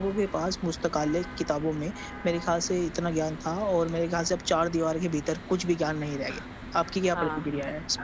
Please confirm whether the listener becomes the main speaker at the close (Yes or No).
Yes